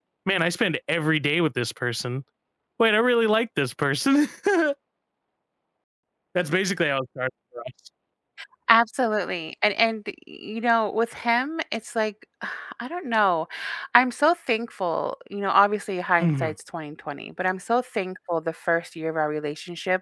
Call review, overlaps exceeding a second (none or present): none